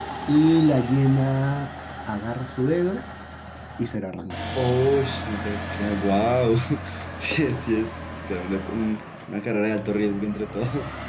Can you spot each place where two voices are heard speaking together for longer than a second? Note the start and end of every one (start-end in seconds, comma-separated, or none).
none